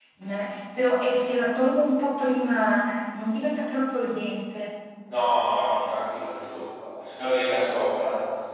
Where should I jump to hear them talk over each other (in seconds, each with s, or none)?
none